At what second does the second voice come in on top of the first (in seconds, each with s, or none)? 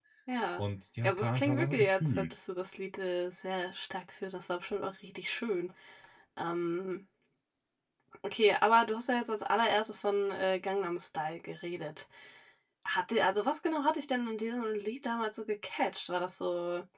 1.0 s